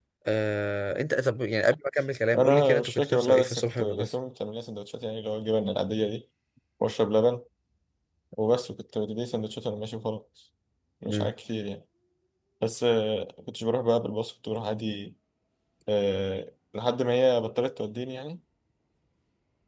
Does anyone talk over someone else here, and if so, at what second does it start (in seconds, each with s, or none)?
2.3 s